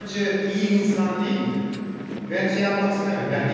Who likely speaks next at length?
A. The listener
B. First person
B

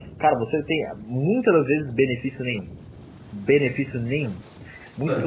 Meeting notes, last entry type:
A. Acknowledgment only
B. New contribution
A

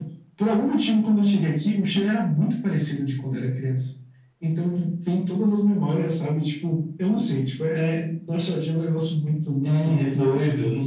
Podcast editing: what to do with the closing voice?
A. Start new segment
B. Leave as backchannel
A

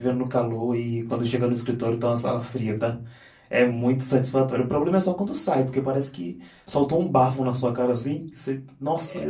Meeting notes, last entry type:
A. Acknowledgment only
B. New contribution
B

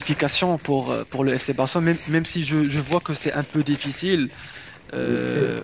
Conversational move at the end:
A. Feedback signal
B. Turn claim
B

